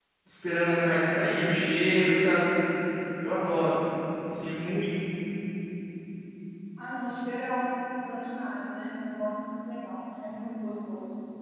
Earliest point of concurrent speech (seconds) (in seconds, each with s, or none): none